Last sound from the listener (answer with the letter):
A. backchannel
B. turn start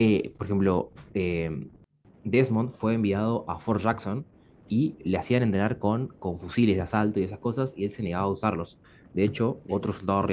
A